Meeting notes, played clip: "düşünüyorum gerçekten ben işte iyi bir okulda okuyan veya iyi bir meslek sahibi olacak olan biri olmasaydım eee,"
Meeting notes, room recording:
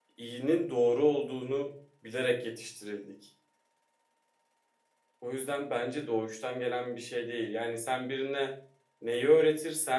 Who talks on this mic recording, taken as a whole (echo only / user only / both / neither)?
user only